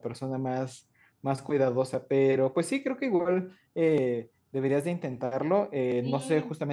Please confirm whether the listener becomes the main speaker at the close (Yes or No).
No